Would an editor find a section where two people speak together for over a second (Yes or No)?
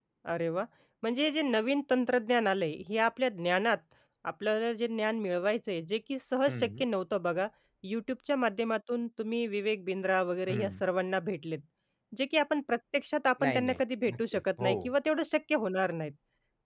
Yes